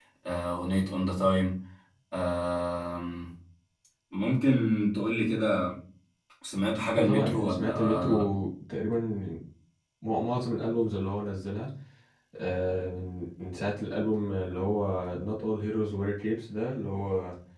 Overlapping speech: Yes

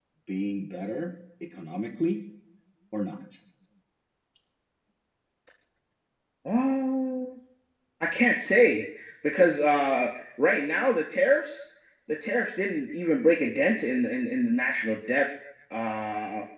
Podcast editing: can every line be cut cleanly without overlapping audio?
Yes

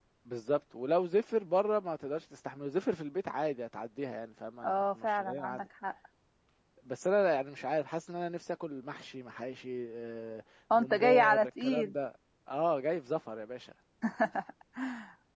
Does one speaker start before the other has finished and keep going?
Yes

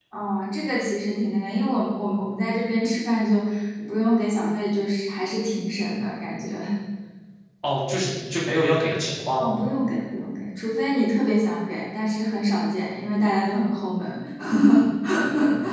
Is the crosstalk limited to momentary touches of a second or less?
Yes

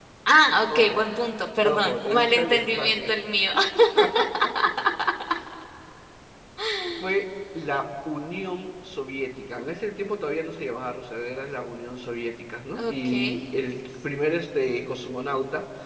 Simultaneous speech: Yes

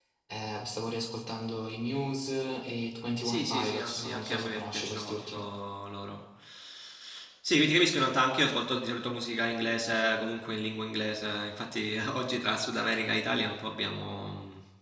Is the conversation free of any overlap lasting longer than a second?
No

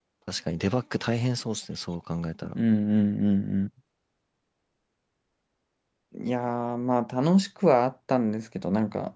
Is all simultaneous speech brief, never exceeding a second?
Yes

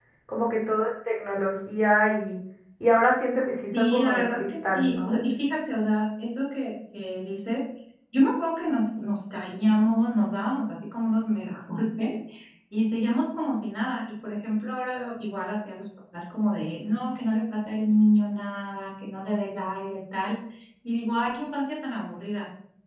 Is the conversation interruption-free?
No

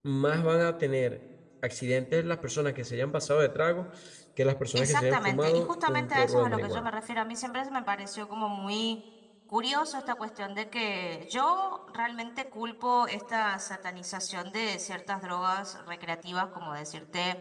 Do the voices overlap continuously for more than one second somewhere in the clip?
Yes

